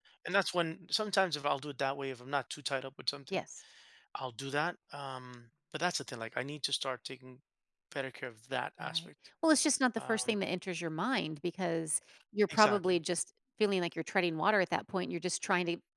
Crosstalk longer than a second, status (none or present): none